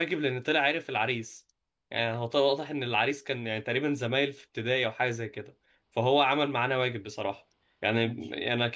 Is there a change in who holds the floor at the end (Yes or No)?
No